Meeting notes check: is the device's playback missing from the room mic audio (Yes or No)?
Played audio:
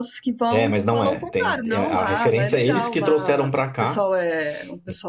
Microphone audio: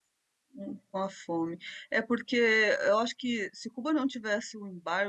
Yes